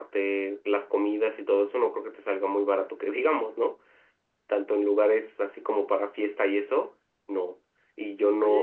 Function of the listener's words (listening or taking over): taking over